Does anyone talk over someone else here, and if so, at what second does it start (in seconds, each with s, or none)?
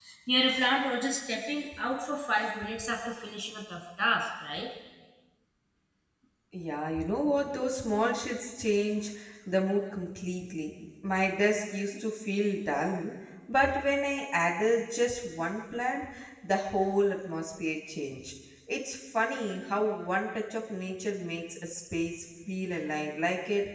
none